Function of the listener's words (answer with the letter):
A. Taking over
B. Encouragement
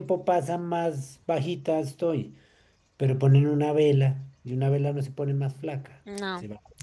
A